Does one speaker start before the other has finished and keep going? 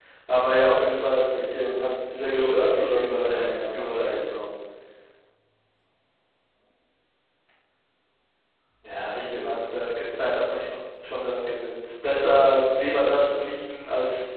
Yes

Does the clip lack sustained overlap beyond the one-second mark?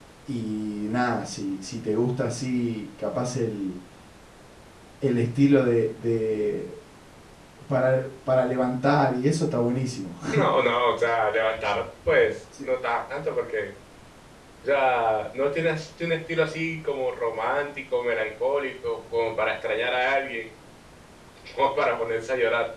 Yes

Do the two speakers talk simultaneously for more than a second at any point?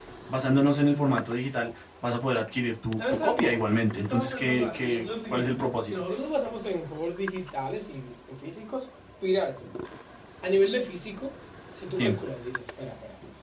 Yes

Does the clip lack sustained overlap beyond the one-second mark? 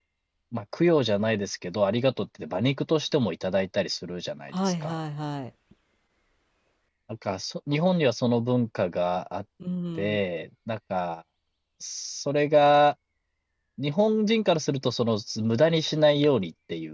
Yes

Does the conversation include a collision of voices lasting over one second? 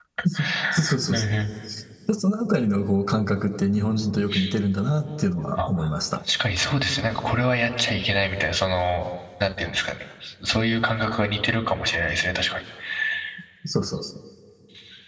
No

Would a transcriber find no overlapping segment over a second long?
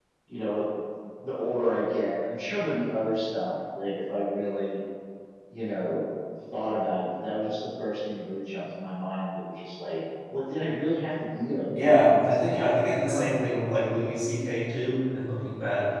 No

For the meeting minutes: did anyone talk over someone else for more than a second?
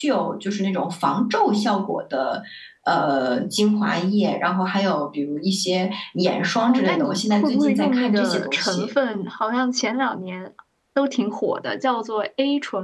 Yes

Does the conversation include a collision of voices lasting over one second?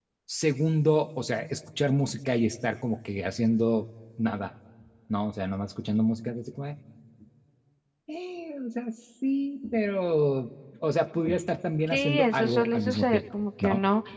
Yes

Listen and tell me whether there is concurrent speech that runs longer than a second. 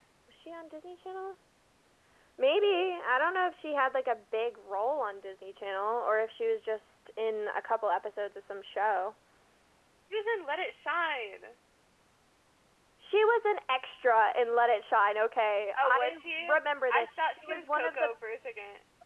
Yes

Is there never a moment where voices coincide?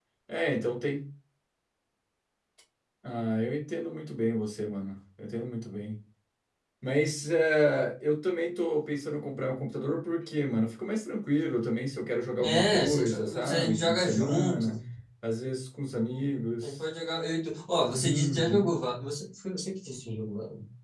No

